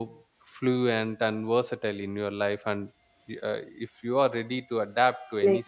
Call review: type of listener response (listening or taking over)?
taking over